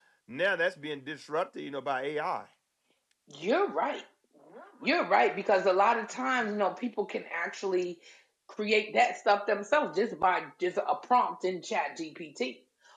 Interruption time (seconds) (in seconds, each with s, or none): none